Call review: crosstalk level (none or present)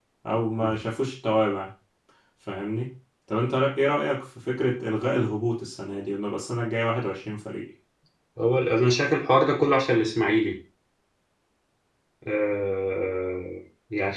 none